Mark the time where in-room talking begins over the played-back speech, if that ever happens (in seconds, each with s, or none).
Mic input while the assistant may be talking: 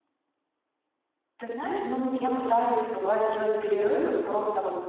1.4 s